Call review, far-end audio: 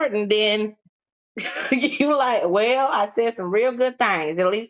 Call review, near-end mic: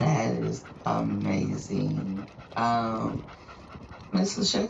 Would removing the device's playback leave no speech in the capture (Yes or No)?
No